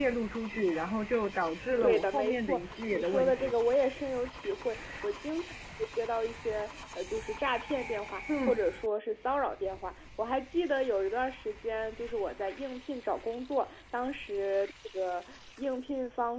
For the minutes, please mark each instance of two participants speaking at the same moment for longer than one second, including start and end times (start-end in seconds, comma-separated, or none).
1.8-3.5